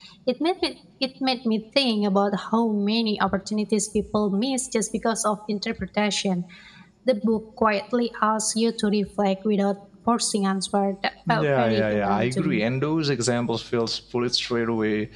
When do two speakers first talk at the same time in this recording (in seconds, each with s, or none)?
11.3 s